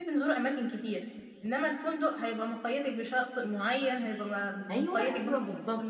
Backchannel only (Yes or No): No